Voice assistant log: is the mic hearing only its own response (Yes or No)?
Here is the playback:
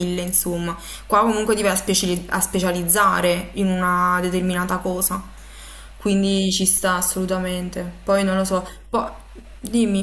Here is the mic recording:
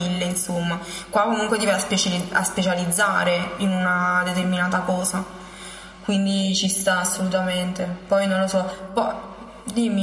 Yes